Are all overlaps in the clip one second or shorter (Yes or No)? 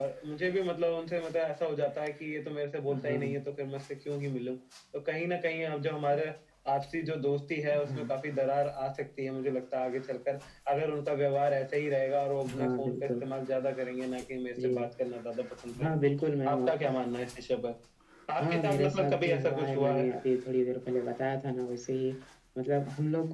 No